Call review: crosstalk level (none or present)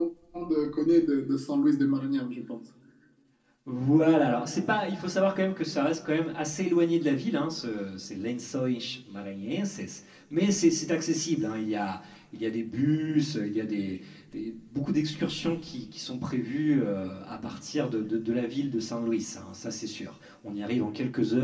none